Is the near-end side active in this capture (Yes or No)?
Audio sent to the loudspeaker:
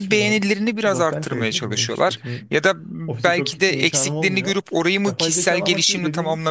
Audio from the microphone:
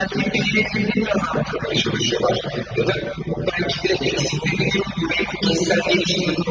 No